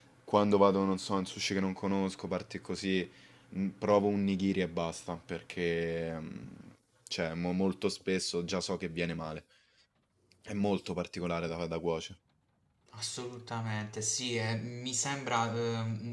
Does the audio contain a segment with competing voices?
No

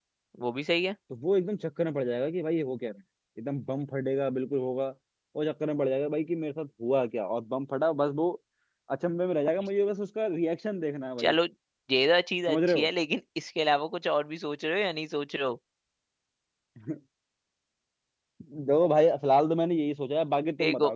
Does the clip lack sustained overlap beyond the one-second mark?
Yes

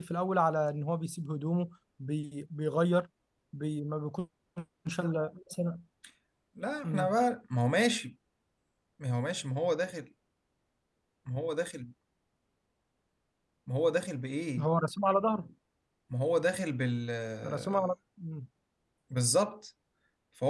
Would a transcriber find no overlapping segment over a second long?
Yes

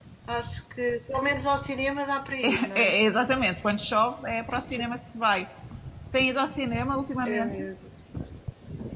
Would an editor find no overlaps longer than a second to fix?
Yes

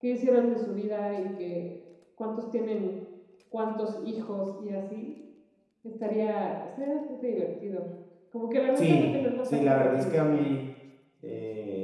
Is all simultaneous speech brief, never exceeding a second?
No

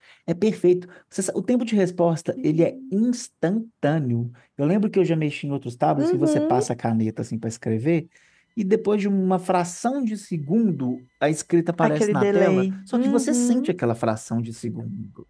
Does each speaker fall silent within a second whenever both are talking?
No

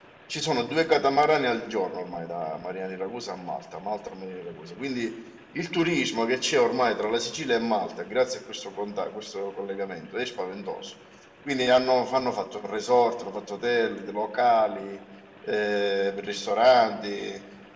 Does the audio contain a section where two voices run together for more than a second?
No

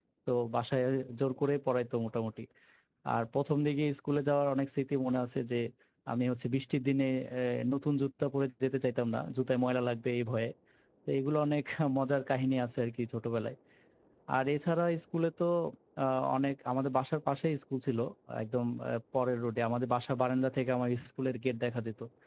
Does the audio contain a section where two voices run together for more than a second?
No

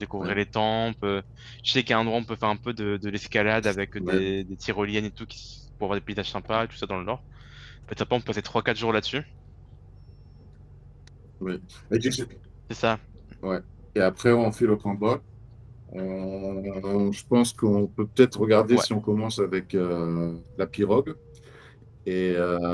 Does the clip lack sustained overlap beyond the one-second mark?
Yes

